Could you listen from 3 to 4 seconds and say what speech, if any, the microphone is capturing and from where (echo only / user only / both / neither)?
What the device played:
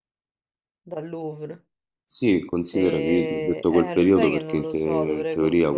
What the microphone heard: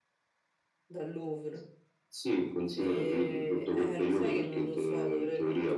echo only